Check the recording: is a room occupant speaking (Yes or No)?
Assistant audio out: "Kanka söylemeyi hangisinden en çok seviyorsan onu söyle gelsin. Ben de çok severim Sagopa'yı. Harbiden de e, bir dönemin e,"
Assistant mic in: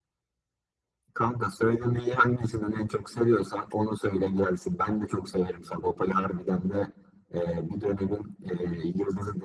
No